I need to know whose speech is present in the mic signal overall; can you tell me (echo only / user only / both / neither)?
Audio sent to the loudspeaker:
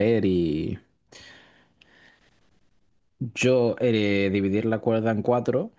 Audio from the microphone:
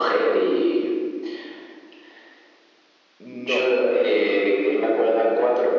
both